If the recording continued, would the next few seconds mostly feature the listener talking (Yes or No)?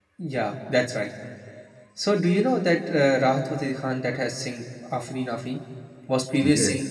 No